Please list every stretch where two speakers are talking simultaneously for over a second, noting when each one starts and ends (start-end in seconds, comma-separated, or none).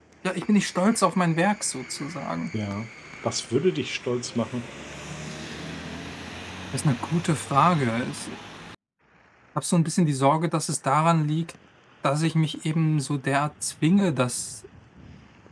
none